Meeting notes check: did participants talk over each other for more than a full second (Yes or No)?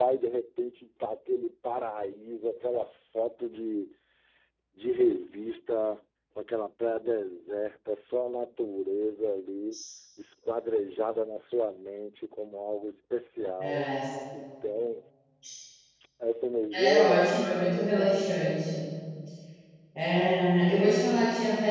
Yes